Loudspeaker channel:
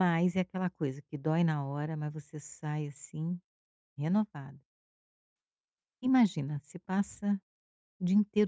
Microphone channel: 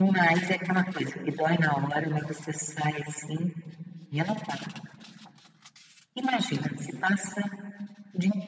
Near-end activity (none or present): none